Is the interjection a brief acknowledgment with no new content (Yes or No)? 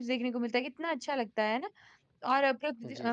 Yes